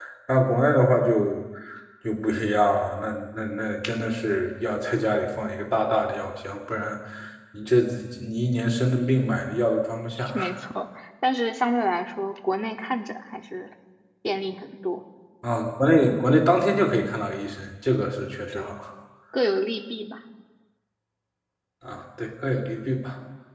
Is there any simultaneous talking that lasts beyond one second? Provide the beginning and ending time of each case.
none

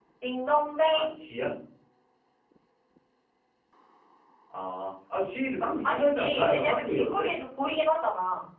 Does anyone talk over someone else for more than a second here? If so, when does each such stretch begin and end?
5.9-7.3

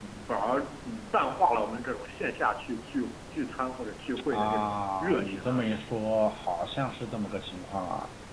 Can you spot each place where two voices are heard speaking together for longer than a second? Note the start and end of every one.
4.3-5.6

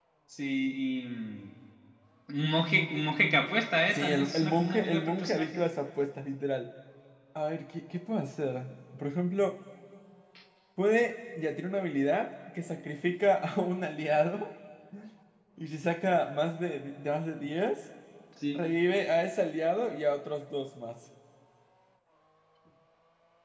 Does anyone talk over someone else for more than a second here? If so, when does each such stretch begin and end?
3.9-5.5

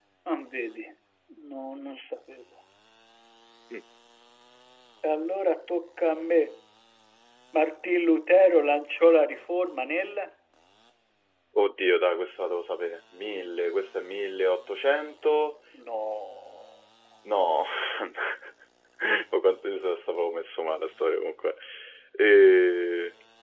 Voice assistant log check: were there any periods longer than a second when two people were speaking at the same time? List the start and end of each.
none

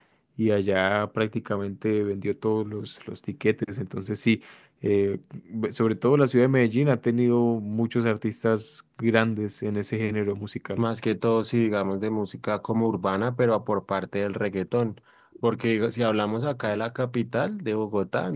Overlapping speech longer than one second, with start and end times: none

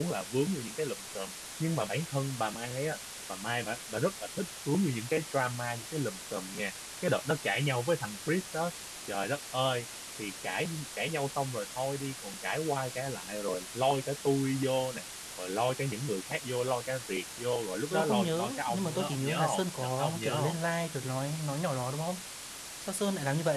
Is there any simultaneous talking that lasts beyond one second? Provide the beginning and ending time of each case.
17.9-20.6

